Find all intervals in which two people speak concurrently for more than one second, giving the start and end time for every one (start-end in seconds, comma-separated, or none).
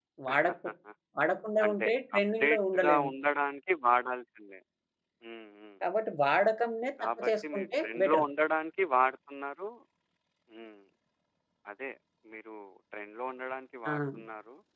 1.6-3.1, 7.0-8.2